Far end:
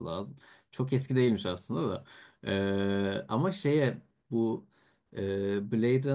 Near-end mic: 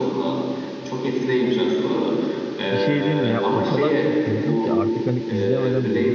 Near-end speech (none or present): present